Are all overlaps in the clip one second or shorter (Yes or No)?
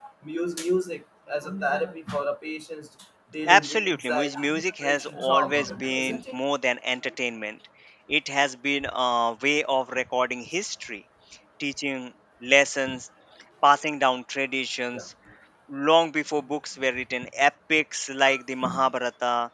No